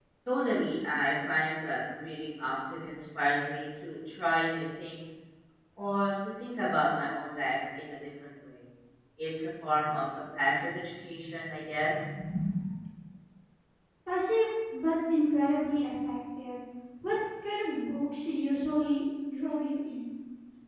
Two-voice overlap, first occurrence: none

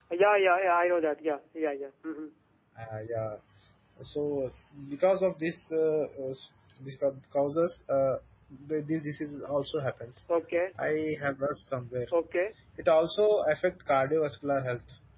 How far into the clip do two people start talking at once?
none

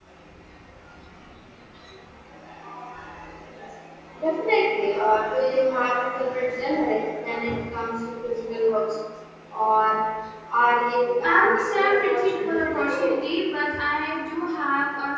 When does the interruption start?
11.2 s

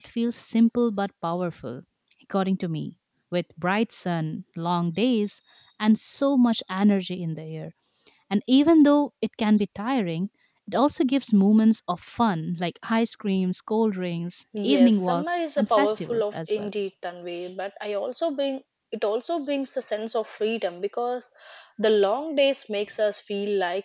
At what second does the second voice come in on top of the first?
14.5 s

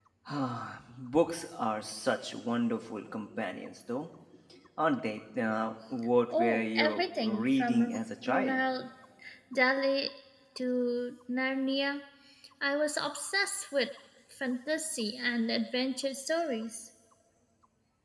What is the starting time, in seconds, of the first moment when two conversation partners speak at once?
6.3 s

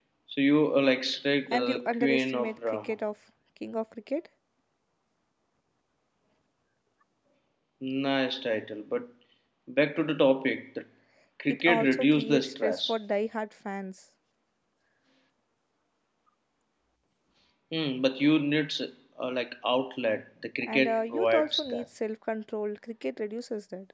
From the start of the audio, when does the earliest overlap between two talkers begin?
1.5 s

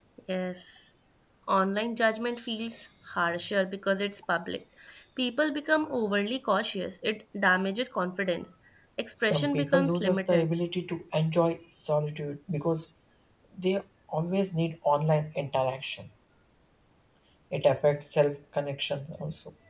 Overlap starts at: 9.2 s

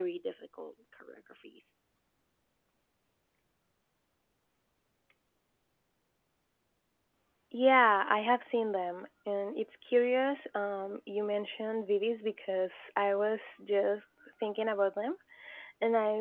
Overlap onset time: none

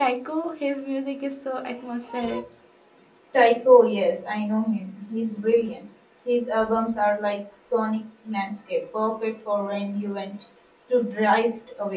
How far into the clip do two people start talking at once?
none

